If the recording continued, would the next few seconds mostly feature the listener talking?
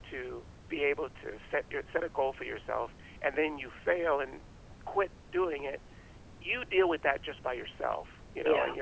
No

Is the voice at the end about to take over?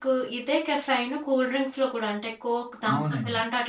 No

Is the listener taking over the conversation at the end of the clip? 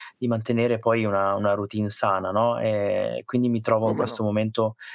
No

